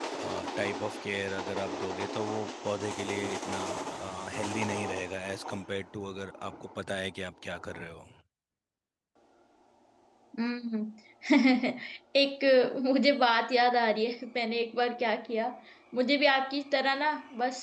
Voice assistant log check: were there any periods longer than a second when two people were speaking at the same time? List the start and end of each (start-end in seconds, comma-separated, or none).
none